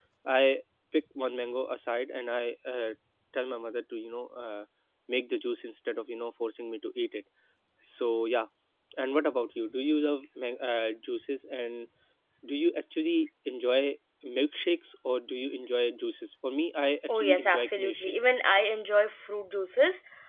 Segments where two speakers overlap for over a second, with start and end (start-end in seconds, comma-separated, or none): 17.1-18.4